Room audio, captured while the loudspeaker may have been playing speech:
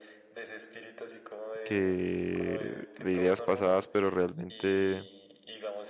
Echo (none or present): present